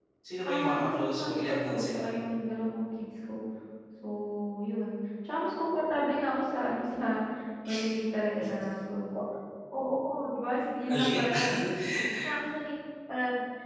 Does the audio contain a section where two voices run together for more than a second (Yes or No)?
Yes